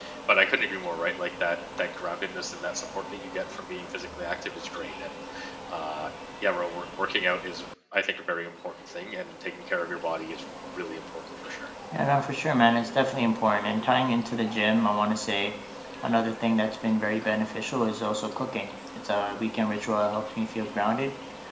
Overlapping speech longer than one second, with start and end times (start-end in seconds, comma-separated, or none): none